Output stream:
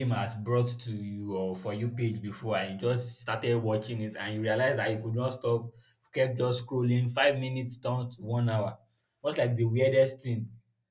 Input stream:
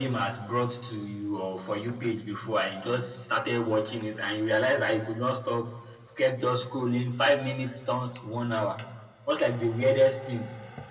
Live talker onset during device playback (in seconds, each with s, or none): none